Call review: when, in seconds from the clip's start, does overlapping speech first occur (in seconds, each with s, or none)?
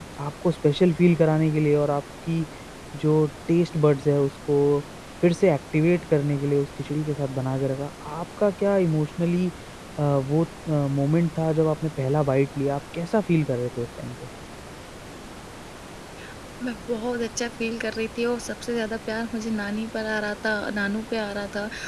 none